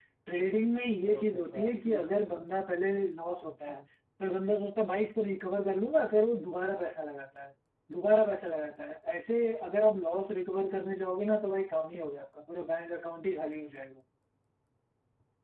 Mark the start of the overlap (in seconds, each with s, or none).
1.0 s